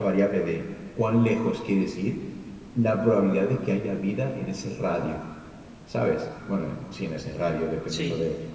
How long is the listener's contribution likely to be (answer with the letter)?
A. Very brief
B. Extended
B